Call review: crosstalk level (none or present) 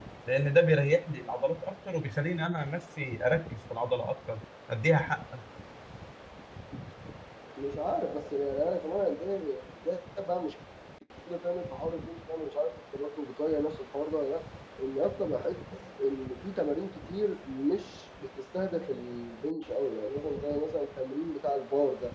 none